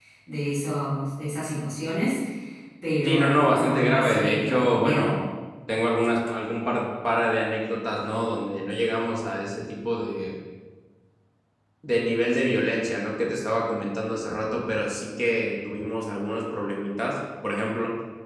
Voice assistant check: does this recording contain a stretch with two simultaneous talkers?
Yes, from 3.0 s

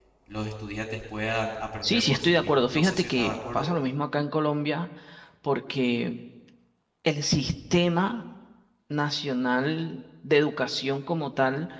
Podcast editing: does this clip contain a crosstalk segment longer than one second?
Yes, from 1.8 s

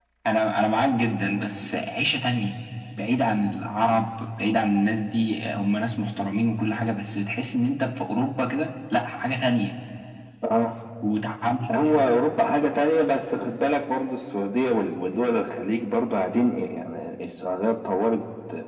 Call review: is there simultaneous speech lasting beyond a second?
No

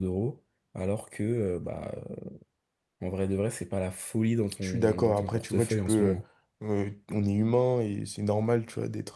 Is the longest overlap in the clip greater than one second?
Yes, from 4.6 s

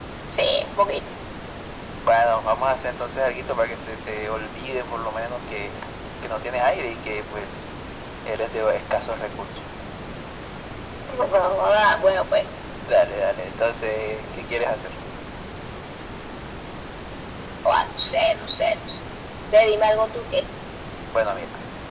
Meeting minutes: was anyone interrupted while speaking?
No

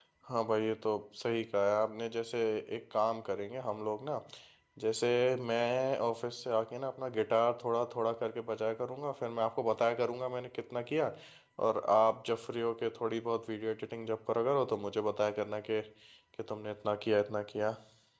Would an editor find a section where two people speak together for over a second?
No

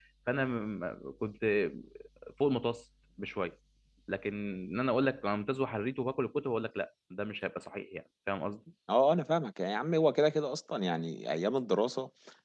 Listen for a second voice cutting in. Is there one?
No

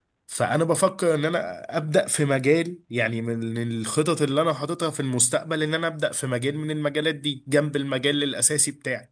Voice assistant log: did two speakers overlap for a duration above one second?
No

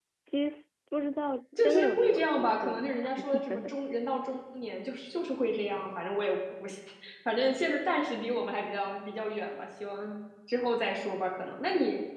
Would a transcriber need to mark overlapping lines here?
Yes, from 1.5 s

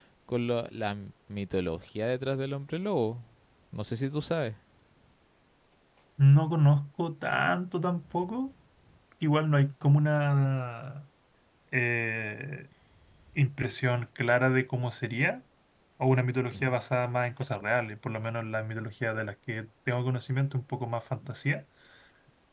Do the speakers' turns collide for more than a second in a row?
No

